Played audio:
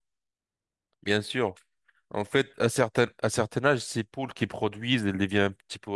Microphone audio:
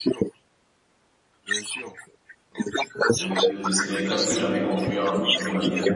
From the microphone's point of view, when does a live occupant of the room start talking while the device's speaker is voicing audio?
3.2 s

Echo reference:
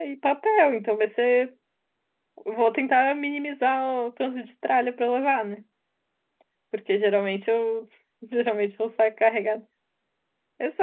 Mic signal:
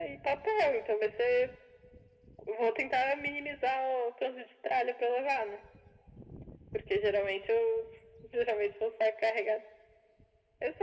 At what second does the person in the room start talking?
none

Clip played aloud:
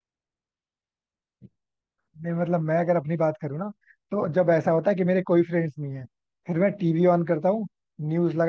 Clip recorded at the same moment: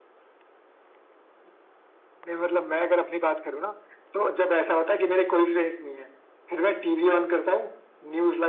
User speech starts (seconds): none

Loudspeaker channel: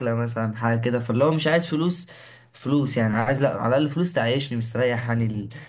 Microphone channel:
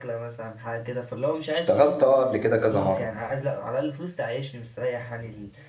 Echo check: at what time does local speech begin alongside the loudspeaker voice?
1.5 s

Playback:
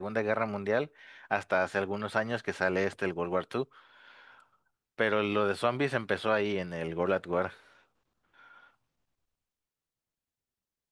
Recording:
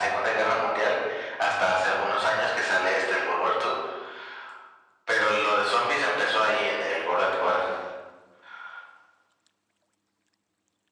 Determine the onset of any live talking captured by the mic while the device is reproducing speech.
none

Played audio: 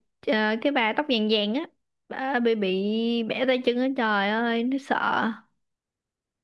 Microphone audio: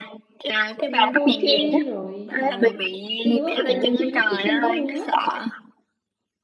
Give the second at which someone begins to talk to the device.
0.8 s

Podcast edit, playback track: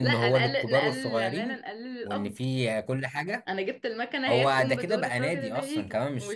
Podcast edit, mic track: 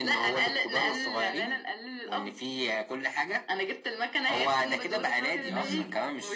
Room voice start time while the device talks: 5.4 s

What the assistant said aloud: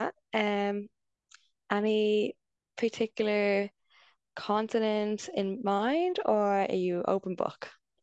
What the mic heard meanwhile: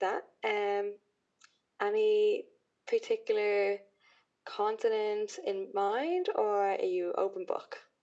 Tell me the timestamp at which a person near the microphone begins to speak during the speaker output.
none

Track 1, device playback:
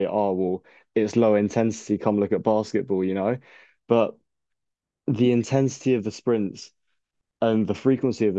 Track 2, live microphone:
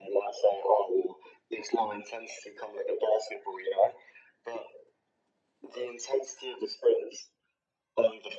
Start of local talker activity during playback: none

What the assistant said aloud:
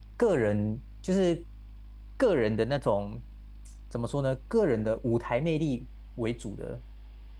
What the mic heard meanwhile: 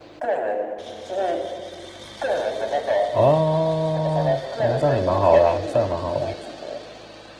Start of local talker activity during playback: 3.1 s

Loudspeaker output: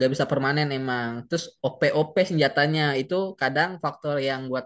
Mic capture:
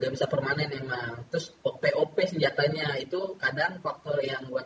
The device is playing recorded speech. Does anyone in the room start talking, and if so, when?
none

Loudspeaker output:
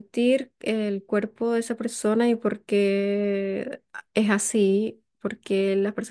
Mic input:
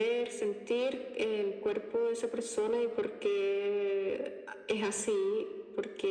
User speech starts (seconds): none

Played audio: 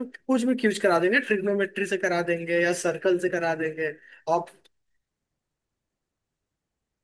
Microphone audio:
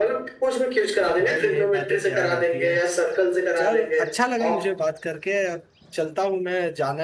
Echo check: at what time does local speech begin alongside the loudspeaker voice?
1.2 s

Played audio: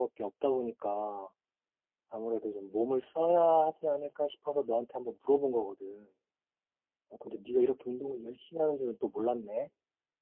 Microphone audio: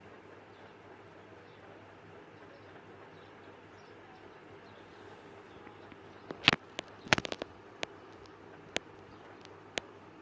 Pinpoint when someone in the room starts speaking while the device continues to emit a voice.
none

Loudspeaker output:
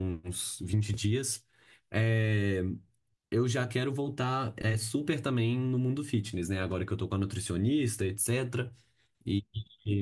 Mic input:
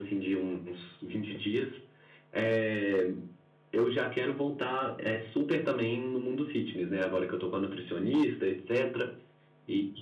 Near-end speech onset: none

